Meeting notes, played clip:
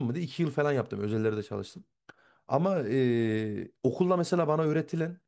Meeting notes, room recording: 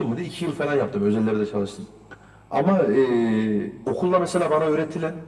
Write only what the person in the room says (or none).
none